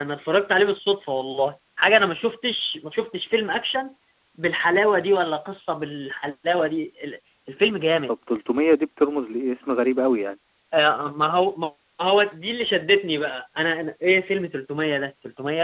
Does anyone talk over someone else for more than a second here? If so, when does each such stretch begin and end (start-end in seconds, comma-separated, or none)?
none